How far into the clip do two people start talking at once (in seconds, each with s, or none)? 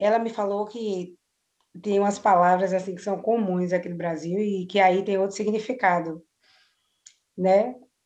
none